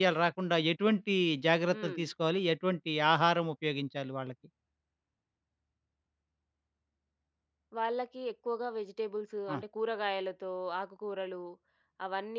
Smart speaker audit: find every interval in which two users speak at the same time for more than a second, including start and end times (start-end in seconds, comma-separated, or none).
none